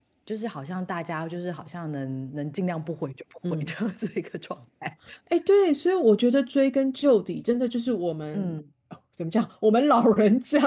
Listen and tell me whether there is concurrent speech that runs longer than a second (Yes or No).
No